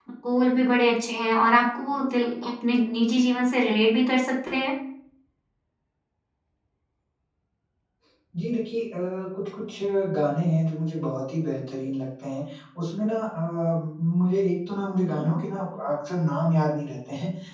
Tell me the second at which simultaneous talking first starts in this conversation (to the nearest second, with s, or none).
none